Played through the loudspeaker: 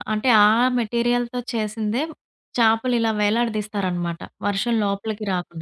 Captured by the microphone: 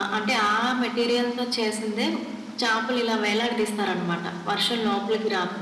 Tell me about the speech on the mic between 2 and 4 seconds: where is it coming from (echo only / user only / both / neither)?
echo only